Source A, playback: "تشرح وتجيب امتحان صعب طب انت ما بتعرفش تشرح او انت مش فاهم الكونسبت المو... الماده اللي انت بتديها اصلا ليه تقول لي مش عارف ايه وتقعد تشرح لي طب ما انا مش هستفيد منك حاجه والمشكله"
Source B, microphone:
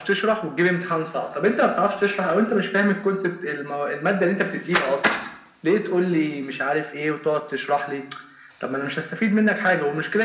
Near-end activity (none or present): none